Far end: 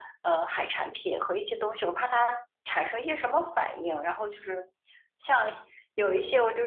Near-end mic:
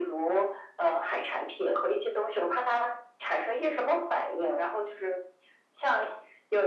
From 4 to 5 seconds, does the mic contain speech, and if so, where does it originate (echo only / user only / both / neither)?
echo only